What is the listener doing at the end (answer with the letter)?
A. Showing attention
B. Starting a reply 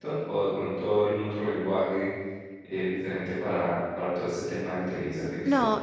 B